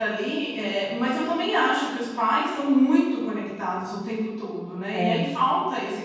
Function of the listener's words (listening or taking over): listening